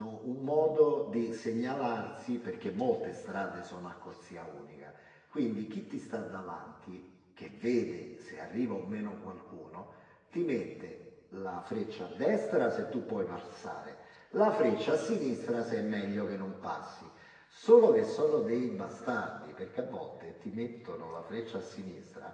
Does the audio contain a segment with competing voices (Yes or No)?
No